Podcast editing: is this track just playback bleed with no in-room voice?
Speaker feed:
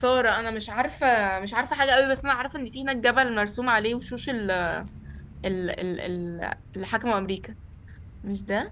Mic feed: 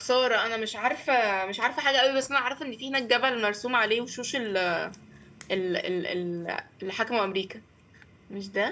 Yes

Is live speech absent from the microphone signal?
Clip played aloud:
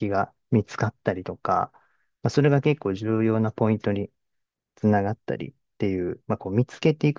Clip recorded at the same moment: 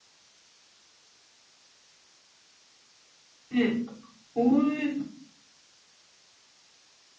No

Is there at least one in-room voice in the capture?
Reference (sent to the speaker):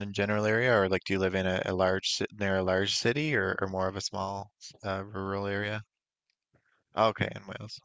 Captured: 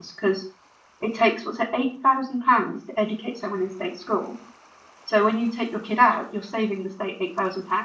Yes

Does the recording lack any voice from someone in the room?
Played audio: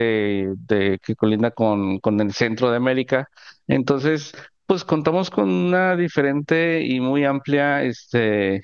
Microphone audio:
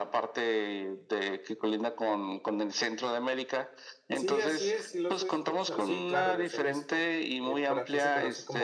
No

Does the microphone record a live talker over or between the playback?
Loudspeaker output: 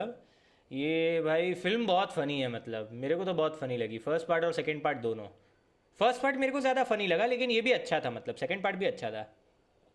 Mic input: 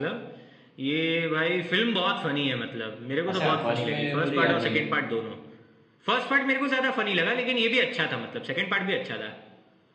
Yes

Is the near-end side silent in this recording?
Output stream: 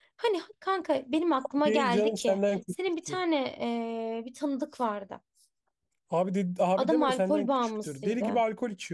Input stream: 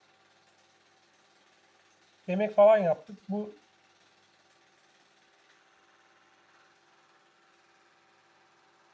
No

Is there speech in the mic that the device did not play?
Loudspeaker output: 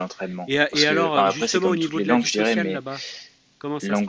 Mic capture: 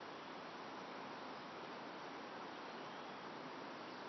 No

